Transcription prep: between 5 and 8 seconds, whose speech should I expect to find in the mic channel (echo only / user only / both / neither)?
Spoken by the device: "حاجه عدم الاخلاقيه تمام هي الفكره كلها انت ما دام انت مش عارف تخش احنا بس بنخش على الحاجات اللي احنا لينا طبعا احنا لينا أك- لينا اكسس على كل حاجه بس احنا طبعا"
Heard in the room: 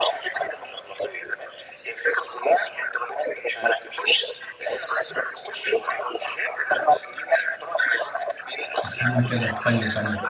echo only